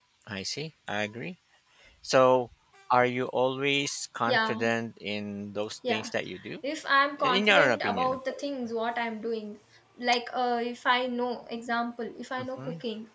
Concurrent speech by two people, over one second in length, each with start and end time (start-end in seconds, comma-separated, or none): 7.2-8.4